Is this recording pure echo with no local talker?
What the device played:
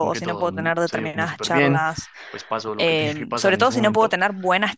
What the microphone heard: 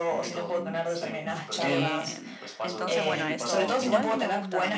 No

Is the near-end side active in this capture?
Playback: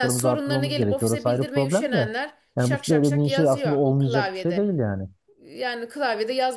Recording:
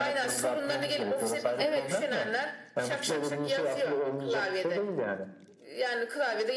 Yes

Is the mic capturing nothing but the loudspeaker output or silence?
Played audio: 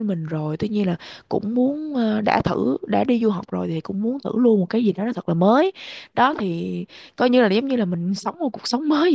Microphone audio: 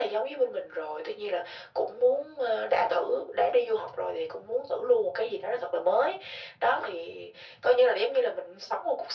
Yes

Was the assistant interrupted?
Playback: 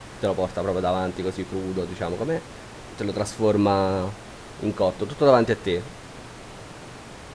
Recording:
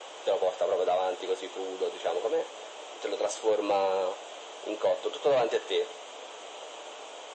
No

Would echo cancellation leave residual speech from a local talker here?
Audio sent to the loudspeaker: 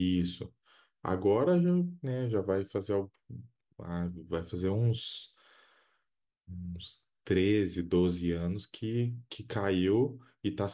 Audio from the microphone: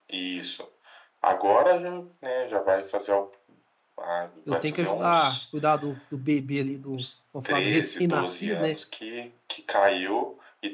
Yes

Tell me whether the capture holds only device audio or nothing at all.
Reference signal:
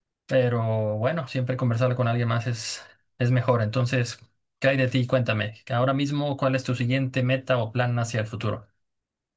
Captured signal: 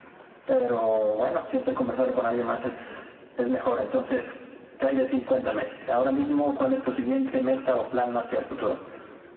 Yes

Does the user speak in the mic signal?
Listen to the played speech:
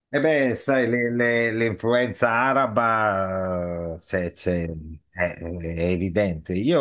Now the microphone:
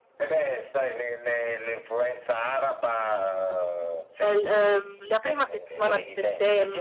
Yes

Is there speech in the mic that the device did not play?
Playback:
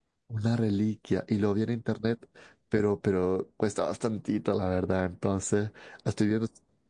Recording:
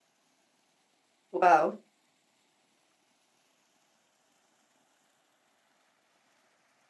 Yes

